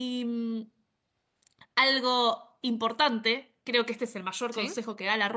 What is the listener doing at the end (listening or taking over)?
listening